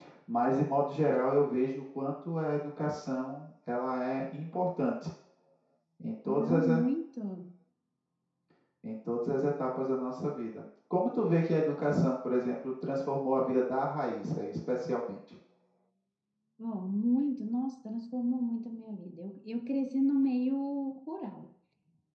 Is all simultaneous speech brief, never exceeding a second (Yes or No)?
Yes